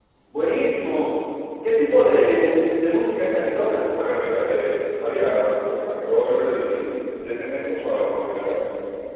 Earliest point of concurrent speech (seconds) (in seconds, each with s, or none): none